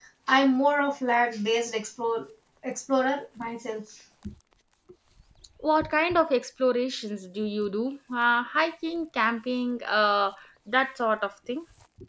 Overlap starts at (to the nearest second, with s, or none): none